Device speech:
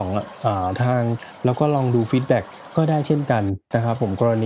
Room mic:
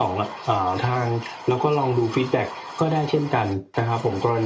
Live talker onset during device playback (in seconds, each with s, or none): none